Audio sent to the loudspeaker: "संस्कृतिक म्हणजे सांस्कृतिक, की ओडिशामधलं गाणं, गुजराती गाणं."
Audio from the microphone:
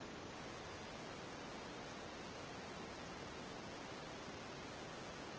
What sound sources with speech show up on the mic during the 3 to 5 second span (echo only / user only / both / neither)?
neither